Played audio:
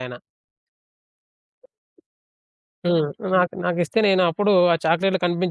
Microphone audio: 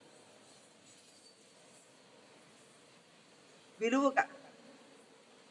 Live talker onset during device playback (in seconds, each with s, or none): 3.8 s